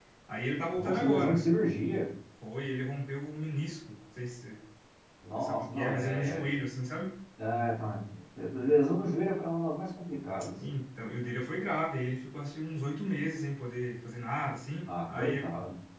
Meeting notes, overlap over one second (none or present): present